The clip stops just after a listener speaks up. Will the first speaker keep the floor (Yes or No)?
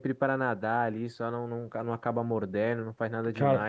Yes